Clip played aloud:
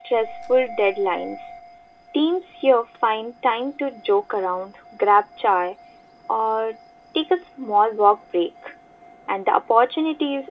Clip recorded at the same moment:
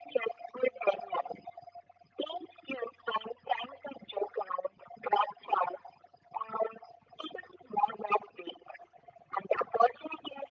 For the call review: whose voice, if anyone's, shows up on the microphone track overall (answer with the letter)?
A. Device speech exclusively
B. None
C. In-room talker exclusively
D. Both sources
A